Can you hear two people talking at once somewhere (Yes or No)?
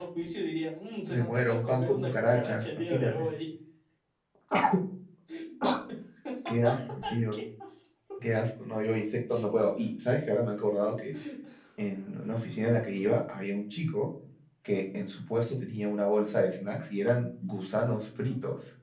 Yes